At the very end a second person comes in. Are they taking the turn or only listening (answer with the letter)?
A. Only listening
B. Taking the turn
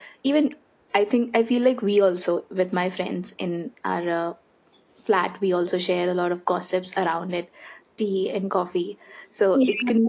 A